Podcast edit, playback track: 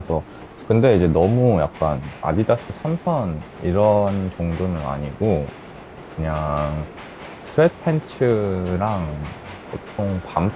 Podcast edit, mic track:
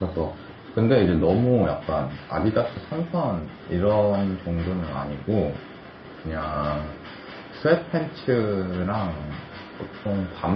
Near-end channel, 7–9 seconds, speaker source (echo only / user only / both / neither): echo only